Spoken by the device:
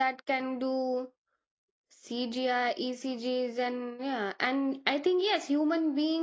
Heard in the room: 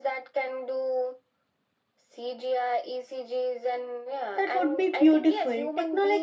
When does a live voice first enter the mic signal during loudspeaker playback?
4.4 s

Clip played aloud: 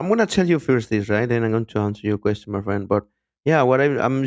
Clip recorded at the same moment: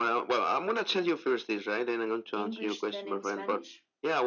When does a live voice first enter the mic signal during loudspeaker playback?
2.3 s

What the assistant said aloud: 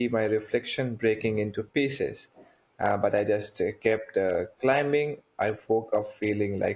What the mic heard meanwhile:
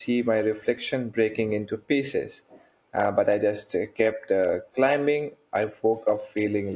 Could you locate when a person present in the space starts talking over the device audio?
none

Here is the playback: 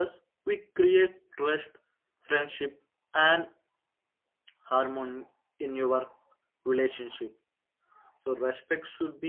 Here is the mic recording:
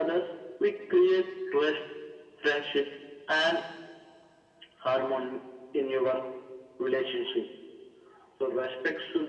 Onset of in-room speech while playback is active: none

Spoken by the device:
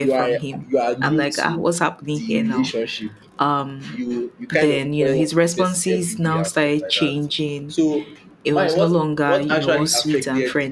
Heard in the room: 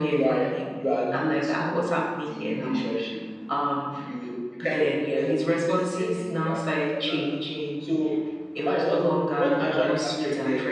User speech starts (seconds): none

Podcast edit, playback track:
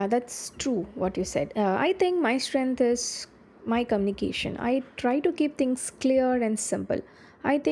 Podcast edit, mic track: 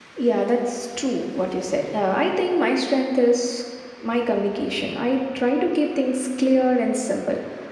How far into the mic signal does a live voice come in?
none

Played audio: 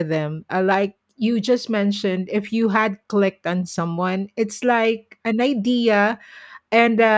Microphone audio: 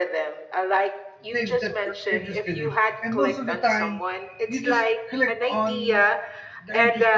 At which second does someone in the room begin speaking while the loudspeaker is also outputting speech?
1.3 s

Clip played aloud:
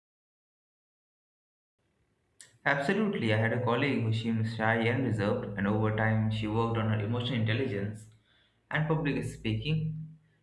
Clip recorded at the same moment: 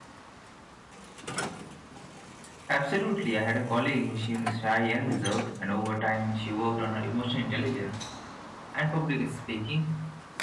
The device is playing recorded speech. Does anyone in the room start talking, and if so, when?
none

